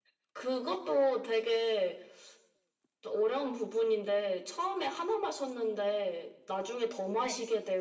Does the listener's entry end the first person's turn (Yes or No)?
No